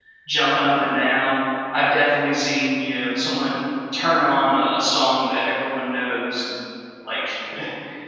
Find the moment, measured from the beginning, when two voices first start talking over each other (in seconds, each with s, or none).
none